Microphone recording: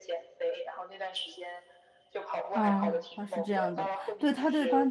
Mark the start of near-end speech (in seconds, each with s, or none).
2.5 s